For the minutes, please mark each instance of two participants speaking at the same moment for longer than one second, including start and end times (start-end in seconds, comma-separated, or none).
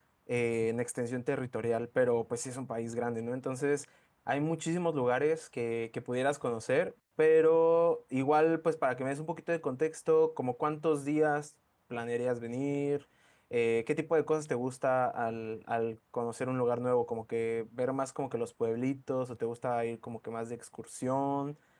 none